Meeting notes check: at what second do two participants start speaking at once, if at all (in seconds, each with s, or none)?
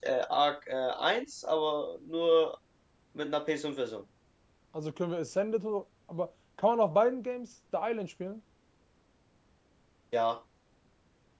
none